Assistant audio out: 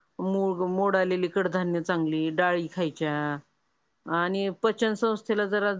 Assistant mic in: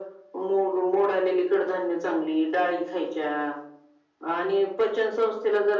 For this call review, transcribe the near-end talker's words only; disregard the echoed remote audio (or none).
none